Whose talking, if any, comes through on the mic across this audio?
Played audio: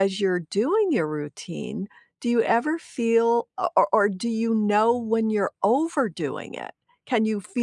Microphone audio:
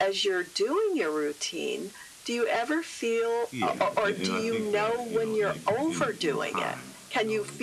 both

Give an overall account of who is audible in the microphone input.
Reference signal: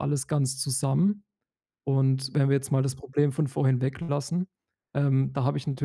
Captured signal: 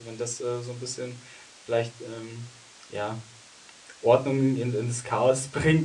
user only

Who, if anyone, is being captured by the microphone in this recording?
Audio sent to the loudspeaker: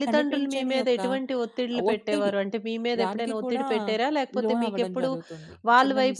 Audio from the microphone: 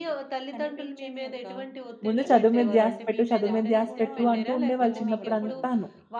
both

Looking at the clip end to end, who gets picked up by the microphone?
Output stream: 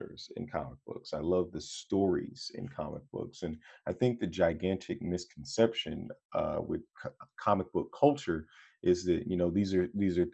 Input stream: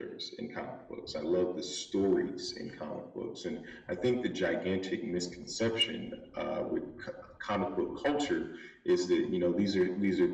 echo only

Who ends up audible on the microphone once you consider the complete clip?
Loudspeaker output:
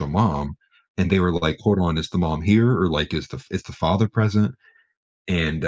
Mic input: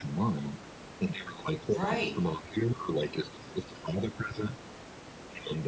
both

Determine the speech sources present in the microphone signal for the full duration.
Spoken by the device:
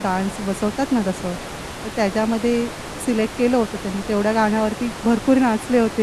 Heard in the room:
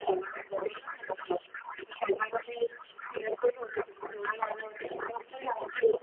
echo only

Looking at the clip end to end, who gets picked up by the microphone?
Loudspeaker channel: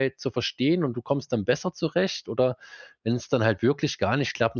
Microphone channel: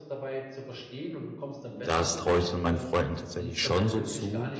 both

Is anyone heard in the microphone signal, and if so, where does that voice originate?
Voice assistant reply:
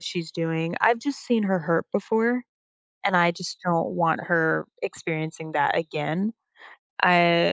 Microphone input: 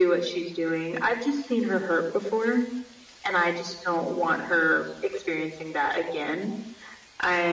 echo only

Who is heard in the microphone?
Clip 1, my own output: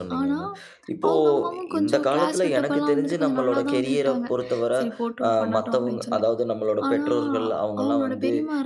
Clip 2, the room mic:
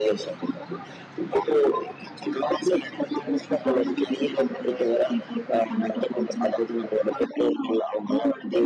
echo only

